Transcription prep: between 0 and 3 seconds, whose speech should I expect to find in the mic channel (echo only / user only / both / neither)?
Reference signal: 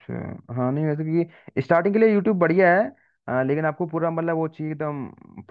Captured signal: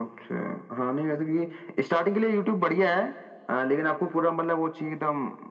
echo only